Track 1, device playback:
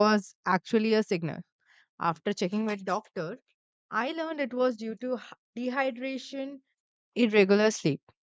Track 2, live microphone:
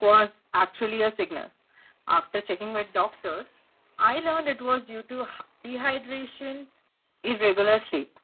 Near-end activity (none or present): none